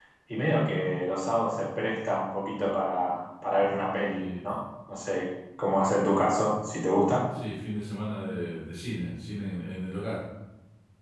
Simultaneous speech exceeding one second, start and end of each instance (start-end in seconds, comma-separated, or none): none